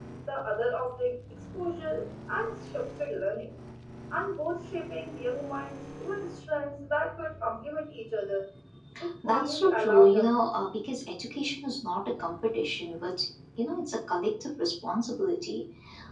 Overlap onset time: 9 s

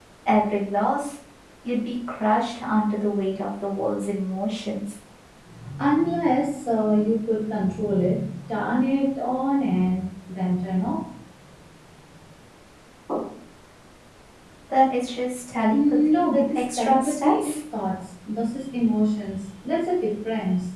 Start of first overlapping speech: 16 s

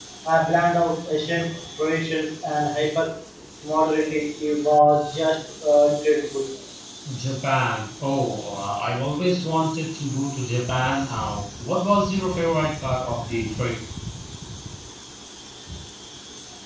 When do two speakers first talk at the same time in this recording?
none

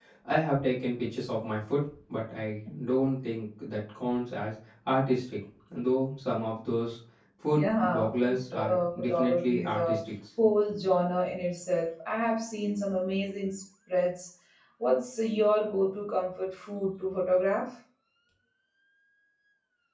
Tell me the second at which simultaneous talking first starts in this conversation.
7 s

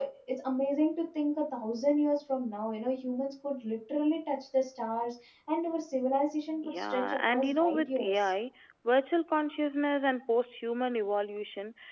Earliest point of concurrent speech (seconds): 7 s

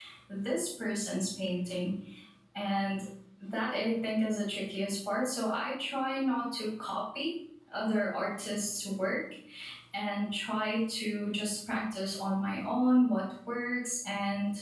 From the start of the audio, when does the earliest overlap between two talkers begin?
none

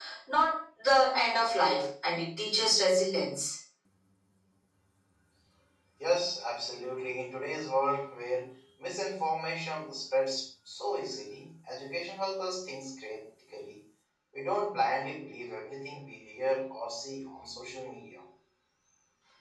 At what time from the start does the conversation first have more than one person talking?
none

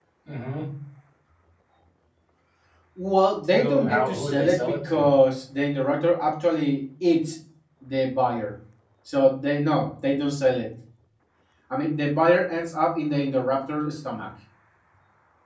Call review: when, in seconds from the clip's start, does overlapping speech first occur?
4 s

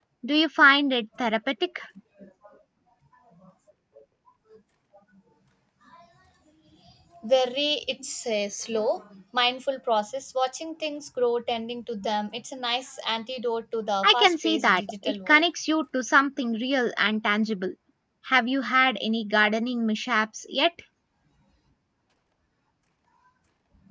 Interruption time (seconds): 14 s

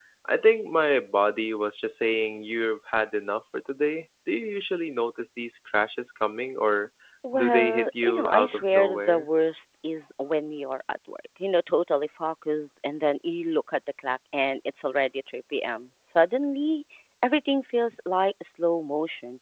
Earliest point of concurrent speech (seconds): 7 s

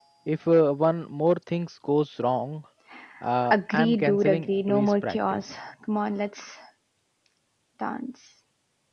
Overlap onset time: 4 s

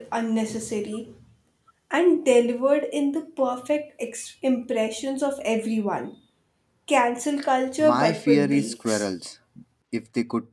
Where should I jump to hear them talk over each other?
8 s

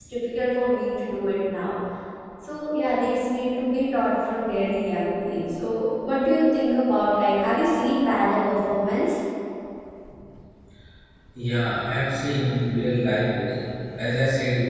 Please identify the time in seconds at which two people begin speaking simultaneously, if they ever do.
none

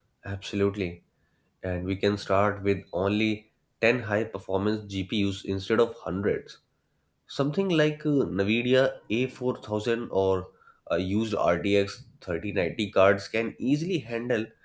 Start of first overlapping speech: none

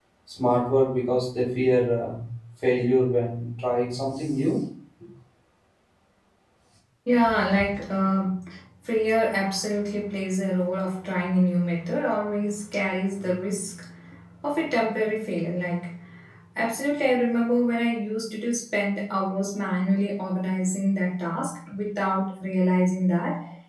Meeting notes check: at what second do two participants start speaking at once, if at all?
none

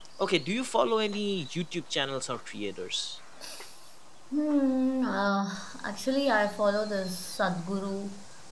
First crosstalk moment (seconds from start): none

